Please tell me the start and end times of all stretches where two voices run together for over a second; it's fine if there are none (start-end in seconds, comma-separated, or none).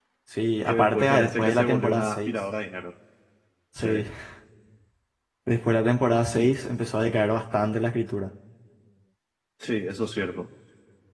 0.7-2.4